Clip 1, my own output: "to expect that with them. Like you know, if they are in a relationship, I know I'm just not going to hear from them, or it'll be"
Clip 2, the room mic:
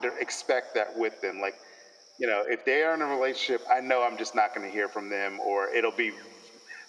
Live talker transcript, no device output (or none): none